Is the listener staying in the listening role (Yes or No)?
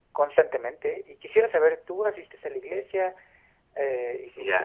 No